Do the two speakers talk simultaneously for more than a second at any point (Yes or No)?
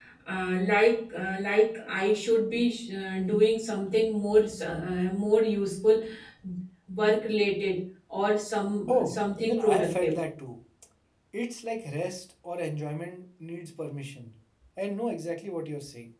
Yes